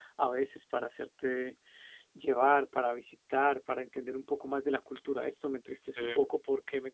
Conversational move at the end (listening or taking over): listening